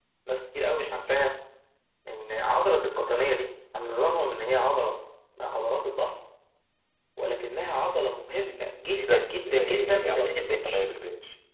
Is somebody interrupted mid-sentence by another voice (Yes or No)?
Yes